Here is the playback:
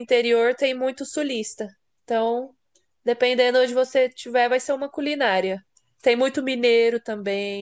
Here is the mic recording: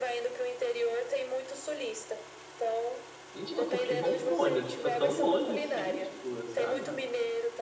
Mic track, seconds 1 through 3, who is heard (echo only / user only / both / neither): echo only